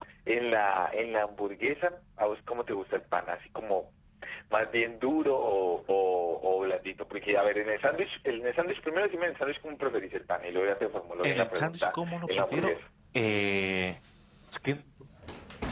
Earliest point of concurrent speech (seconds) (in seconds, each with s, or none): 11.2 s